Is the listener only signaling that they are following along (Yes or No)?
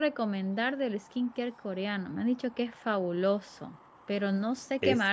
Yes